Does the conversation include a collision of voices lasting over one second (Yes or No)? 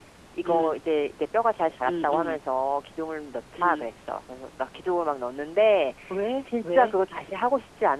No